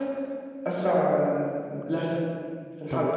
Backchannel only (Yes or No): No